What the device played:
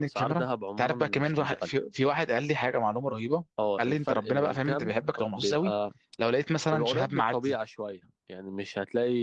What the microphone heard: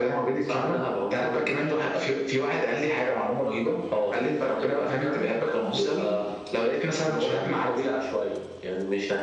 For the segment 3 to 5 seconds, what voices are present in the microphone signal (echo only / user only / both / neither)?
echo only